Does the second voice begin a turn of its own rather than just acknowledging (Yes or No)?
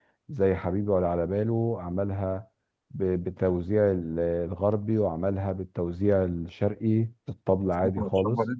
Yes